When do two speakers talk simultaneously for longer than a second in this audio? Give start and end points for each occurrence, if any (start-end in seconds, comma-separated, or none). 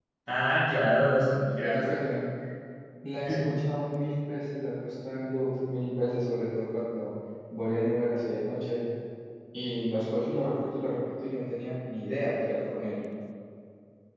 none